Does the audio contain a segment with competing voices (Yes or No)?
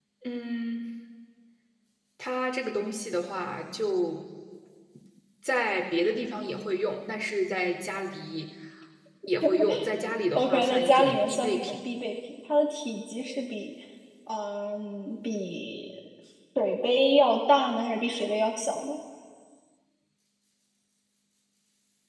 Yes